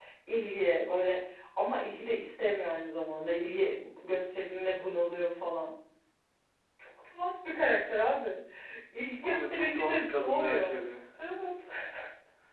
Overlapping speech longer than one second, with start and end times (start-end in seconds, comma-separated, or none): 9.2-10.8